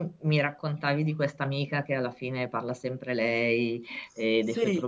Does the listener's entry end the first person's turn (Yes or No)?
No